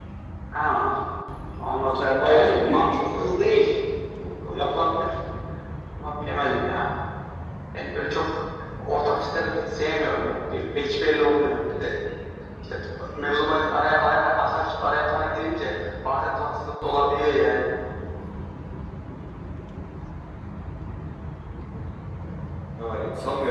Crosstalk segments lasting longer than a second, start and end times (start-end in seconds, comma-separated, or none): 2.0-3.3